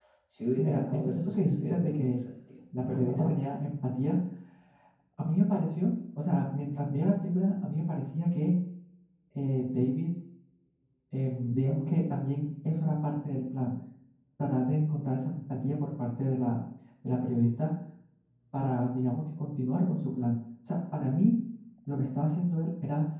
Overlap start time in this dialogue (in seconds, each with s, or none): 0.5 s